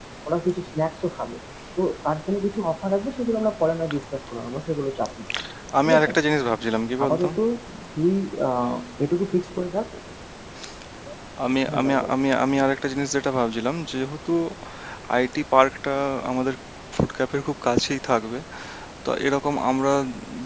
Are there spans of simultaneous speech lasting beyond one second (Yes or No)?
No